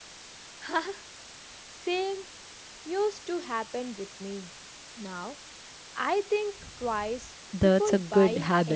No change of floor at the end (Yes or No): No